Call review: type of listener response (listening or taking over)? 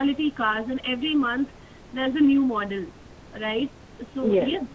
listening